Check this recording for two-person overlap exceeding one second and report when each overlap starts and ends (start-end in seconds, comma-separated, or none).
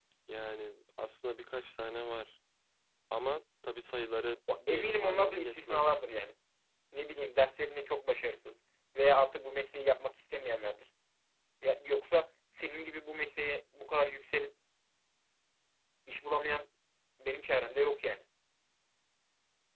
4.6-6.0